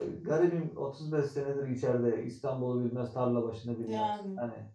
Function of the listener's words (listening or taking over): listening